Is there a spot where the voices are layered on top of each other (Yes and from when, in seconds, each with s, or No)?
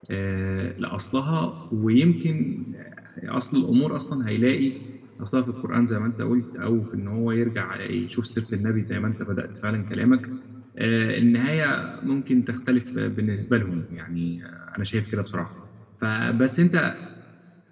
No